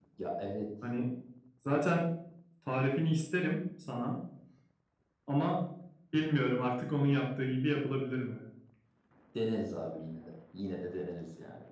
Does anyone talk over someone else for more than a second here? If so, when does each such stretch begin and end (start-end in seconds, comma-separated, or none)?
none